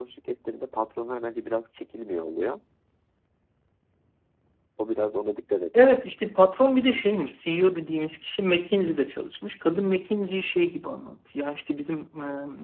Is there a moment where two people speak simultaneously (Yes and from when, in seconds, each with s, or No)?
No